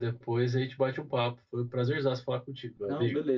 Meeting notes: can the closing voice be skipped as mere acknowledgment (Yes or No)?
No